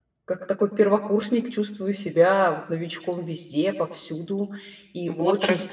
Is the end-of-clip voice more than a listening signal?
Yes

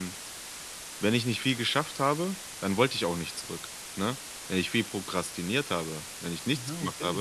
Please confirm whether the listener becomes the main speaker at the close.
No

